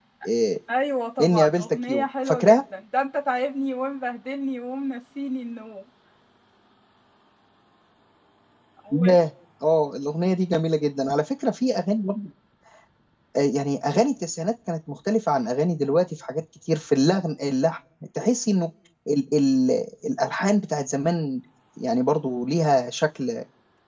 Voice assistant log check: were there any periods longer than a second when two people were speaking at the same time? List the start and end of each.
1.2-2.6

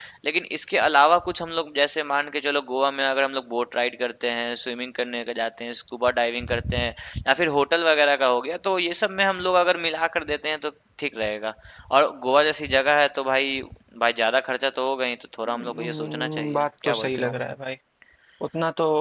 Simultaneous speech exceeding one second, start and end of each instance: 15.5-17.3

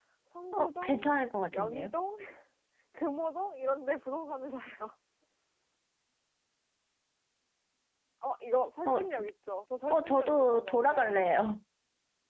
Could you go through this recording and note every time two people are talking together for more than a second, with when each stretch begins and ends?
9.9-11.5

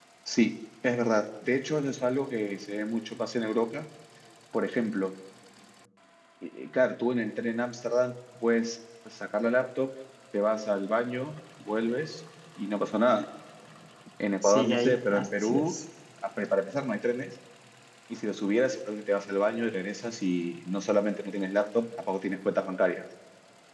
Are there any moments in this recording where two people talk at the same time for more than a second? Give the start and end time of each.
14.4-15.7

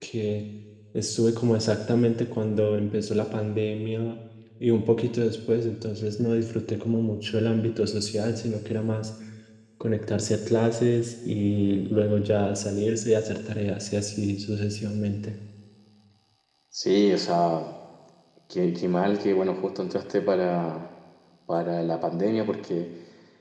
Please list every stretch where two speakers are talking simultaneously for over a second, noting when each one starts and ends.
none

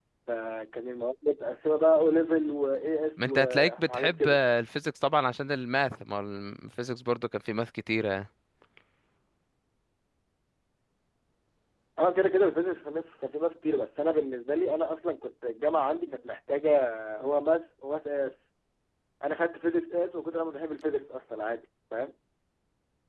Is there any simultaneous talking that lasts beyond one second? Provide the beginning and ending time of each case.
3.2-4.4

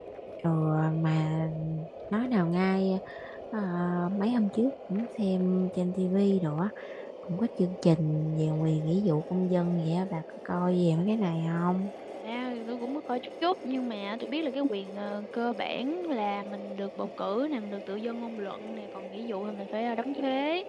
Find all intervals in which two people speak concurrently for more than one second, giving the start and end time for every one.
none

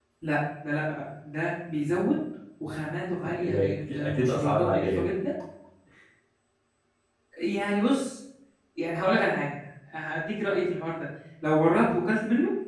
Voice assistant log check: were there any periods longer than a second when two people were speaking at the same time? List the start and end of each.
3.2-5.1

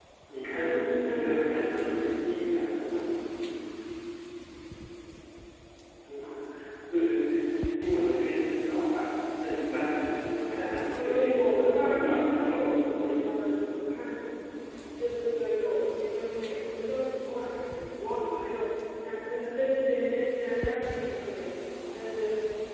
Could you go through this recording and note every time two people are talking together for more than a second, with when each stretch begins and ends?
0.5-2.1, 10.9-13.3

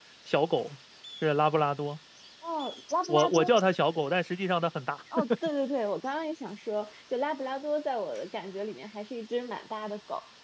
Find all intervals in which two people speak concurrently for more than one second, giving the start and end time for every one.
none

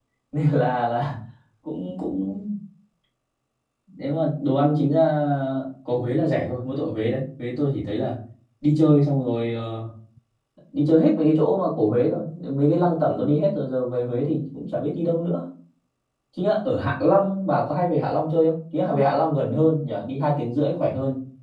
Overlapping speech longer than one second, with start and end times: none

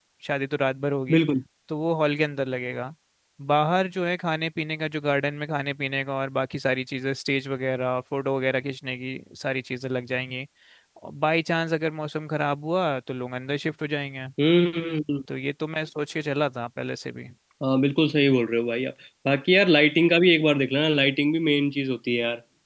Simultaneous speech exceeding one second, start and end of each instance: none

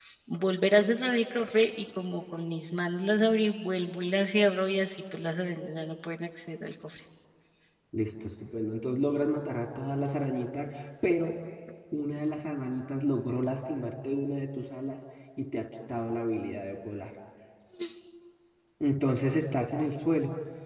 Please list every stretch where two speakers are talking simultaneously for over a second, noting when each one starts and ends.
none

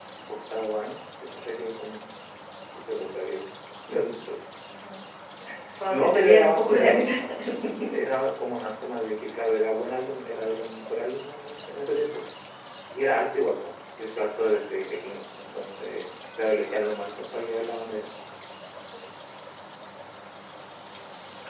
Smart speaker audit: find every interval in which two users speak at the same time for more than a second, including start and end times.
5.9-7.1

